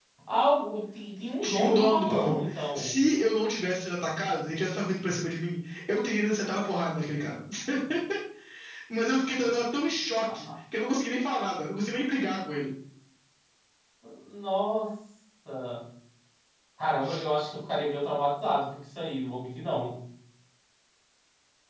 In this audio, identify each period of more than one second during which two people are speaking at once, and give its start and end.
1.4-2.9

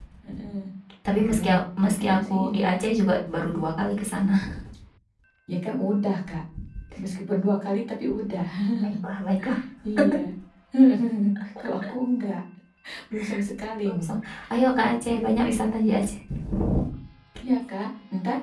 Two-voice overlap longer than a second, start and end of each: 1.1-2.8

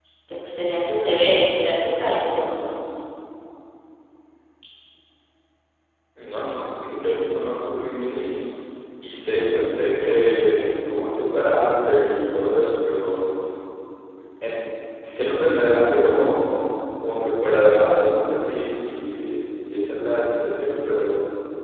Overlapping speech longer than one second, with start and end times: none

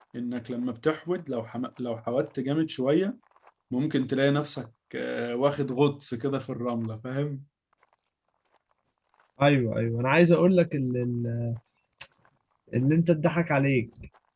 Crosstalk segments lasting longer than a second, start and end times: none

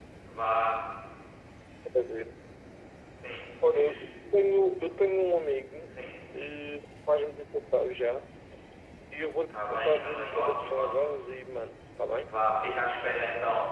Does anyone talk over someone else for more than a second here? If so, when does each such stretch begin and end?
9.5-11.1

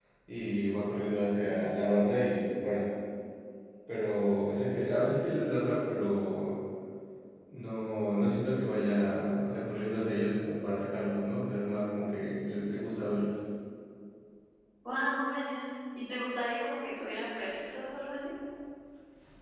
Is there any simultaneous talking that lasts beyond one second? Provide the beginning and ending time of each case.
none

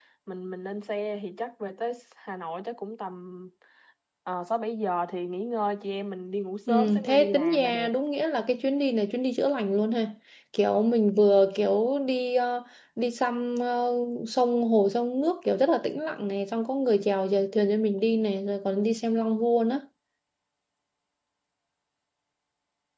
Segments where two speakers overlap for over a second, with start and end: 6.7-7.9

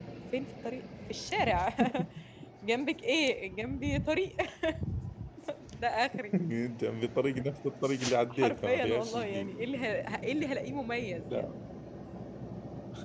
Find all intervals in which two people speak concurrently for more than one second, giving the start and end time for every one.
8.3-9.5

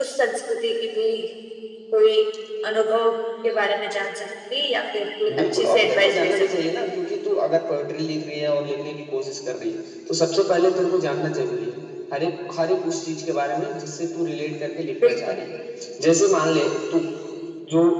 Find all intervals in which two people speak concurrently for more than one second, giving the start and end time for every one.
5.3-6.9

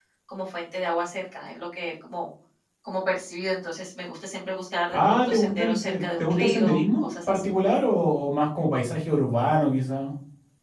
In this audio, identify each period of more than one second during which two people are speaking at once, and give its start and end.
4.9-7.4

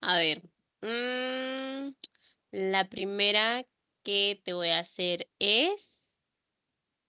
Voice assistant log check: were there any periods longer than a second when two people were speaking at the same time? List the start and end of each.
none

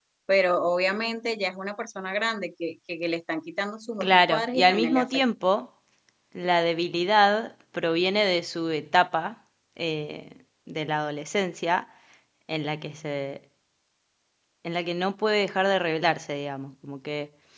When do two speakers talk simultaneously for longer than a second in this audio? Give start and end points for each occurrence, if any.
4.0-5.2

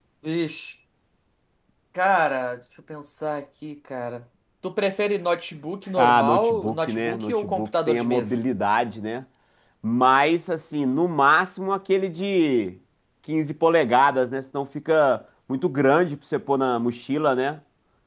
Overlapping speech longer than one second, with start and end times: 6.0-8.4

